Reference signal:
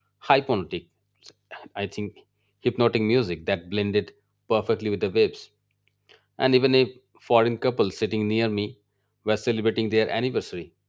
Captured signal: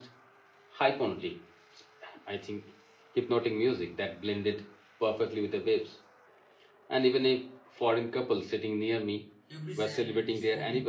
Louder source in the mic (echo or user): echo